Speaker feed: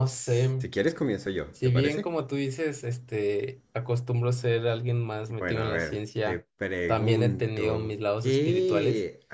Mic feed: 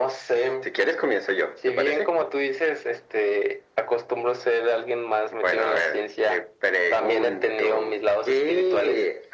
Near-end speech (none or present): none